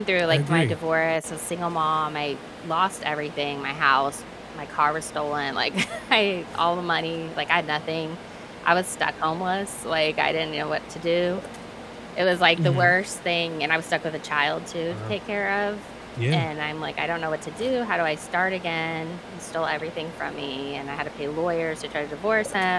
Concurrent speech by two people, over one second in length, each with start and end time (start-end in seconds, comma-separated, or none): none